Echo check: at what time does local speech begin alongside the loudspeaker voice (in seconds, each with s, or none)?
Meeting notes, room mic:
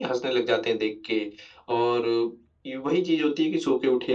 none